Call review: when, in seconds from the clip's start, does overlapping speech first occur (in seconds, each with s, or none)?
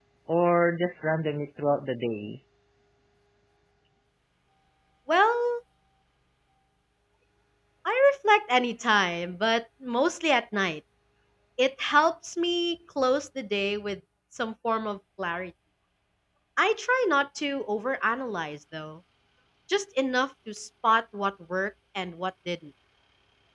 none